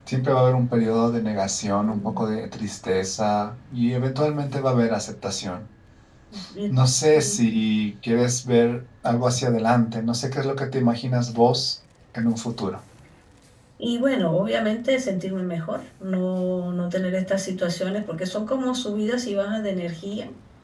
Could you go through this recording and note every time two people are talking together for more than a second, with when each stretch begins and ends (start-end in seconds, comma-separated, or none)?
none